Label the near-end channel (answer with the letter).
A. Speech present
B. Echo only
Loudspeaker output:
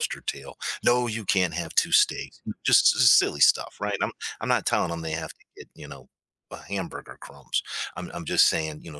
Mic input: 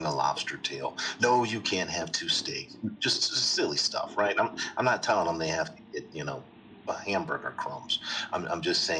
B